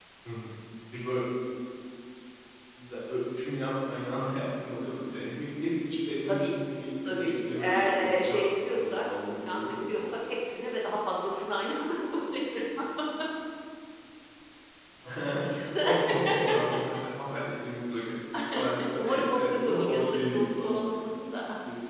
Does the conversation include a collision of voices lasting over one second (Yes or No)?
Yes